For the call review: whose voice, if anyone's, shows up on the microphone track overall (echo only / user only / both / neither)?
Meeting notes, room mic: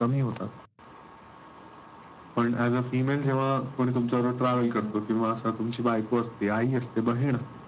both